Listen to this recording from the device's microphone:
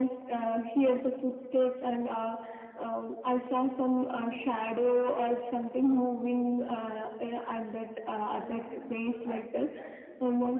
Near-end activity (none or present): present